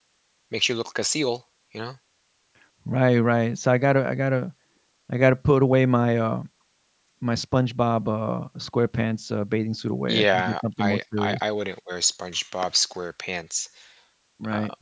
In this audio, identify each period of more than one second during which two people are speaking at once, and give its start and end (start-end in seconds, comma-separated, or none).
10.1-11.4